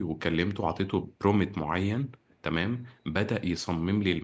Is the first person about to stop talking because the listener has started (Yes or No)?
No